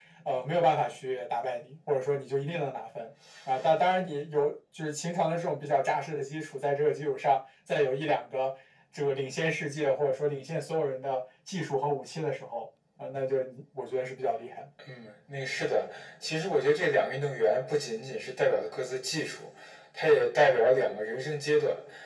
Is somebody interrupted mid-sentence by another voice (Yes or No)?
No